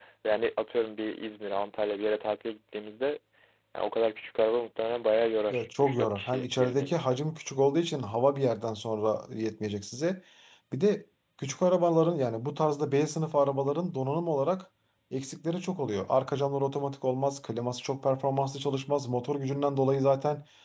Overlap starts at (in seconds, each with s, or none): 5.5 s